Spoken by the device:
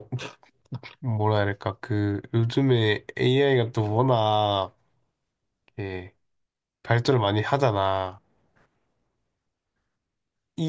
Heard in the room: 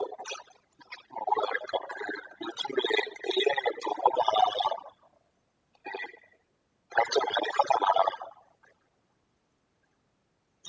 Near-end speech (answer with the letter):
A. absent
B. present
A